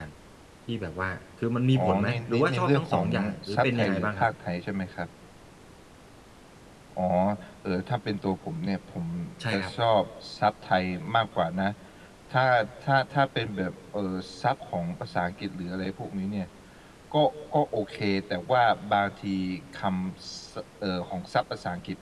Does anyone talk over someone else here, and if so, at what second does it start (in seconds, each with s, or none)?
1.7 s